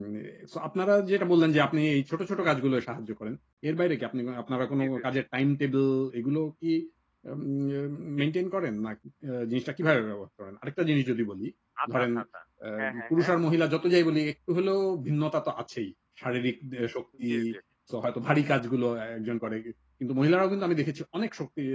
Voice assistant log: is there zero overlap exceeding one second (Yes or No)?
Yes